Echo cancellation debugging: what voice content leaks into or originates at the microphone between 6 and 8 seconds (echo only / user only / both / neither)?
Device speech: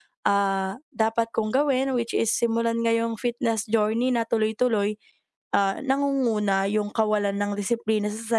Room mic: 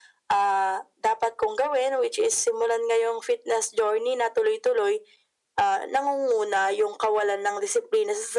echo only